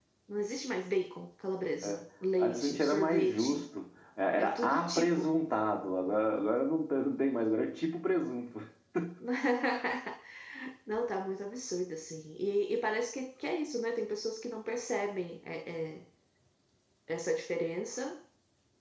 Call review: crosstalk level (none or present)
present